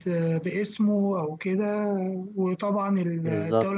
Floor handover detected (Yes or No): No